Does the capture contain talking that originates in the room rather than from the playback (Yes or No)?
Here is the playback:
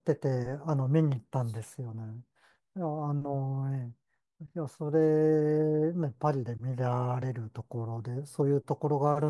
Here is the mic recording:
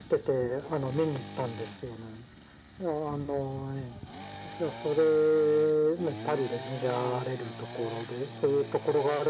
No